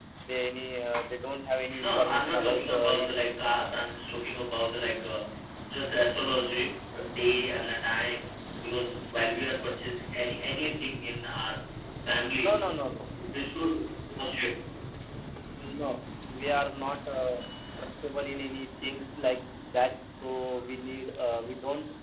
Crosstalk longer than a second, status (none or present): present